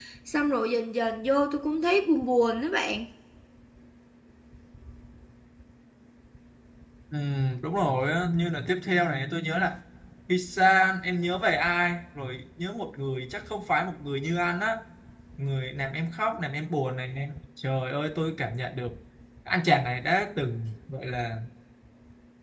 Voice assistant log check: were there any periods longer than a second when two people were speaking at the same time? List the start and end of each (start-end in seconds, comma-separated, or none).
none